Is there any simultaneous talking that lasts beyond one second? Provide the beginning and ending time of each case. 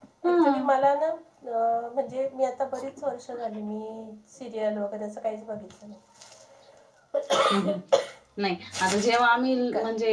none

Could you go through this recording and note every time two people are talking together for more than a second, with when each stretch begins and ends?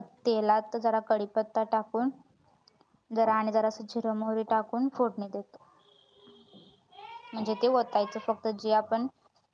none

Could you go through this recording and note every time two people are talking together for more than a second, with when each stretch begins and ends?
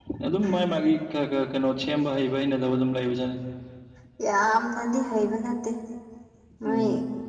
none

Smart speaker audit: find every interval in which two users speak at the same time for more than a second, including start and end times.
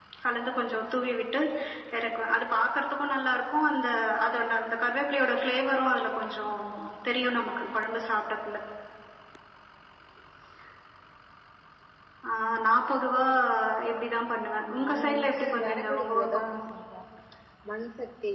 14.7-16.6

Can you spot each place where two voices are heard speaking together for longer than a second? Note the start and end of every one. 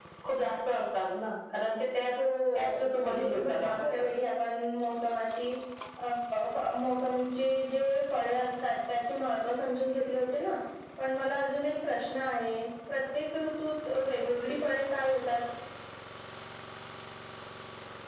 2.5-4.1

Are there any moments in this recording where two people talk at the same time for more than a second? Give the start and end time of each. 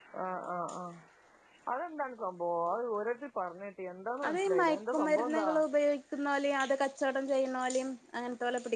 4.3-5.5

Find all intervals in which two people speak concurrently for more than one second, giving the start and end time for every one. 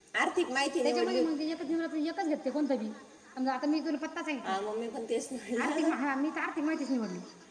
none

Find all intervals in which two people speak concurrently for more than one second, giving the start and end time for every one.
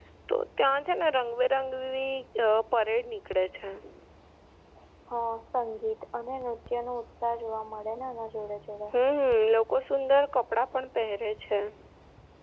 none

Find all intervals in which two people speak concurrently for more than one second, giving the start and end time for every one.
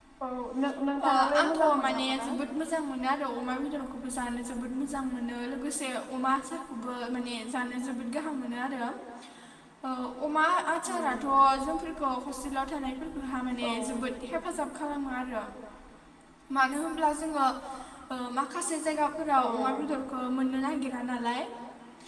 1.0-2.3

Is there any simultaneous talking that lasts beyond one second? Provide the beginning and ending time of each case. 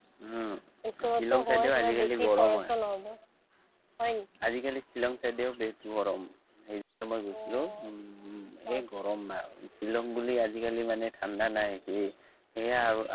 1.1-2.6

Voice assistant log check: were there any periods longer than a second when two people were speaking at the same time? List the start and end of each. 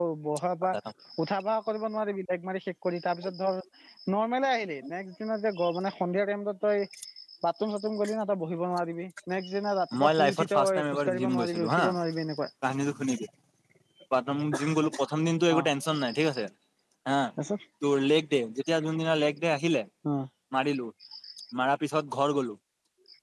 10.0-11.8

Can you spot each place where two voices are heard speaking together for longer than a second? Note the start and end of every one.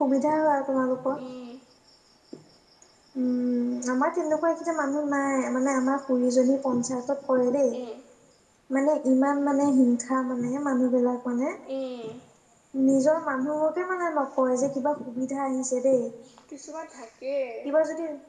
none

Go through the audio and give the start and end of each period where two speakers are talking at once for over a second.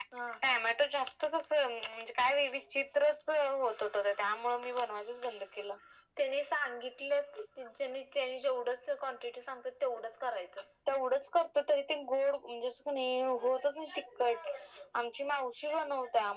none

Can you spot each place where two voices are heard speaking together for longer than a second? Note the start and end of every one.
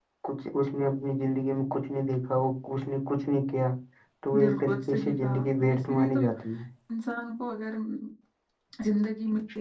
4.4-6.2

